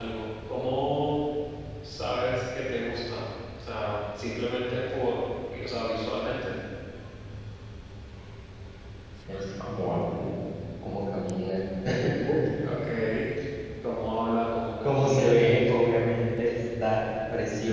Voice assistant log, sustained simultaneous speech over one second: none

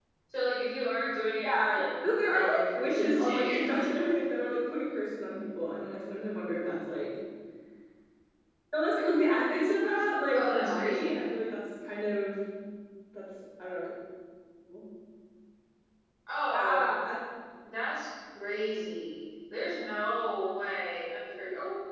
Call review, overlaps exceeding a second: present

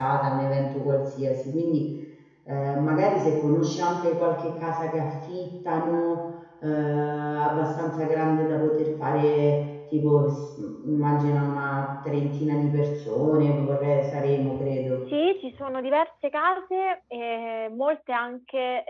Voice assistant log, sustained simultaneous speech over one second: none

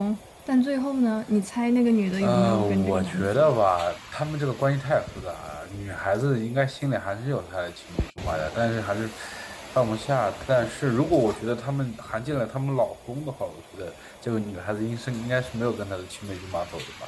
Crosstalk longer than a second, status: present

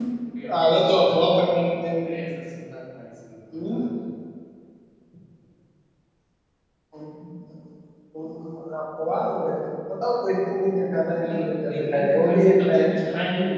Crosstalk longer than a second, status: present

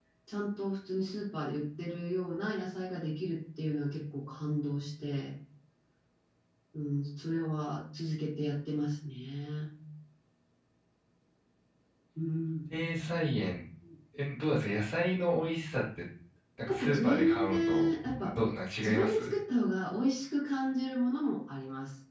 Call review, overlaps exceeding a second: present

